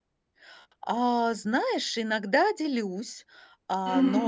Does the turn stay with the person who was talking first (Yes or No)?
Yes